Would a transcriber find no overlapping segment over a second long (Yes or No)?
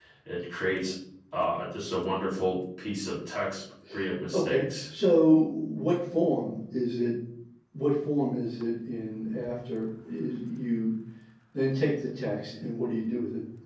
Yes